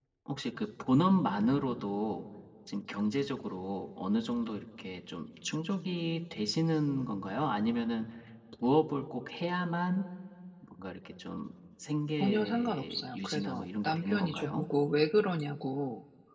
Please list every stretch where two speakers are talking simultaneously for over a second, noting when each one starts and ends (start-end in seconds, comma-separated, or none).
12.2-14.7